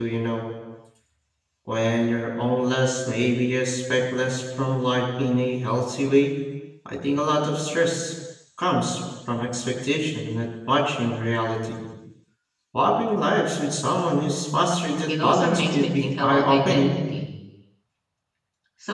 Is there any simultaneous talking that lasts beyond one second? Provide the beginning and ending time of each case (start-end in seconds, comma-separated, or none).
15.1-16.9